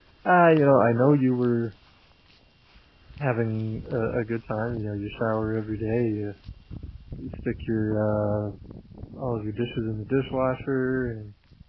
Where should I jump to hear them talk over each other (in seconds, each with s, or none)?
none